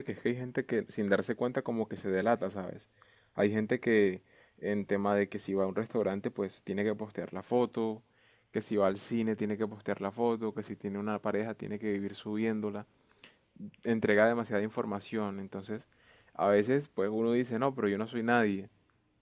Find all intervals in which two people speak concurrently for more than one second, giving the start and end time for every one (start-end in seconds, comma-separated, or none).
none